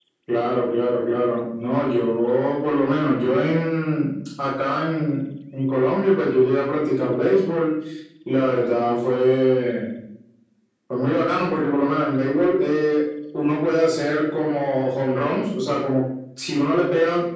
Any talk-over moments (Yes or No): No